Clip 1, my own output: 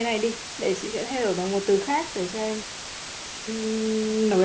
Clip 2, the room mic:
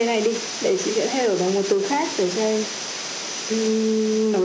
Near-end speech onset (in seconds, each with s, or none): none